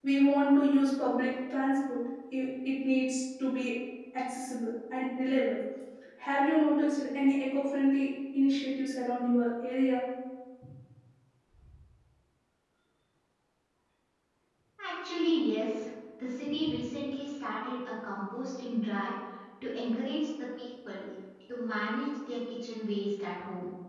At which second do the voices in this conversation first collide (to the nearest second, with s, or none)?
none